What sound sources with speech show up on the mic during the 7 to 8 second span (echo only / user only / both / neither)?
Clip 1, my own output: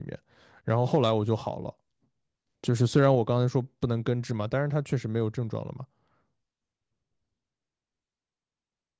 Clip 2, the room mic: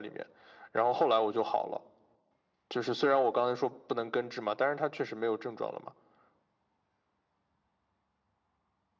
neither